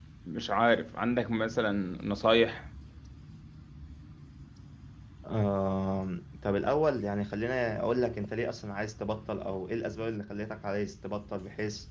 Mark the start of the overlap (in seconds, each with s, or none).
none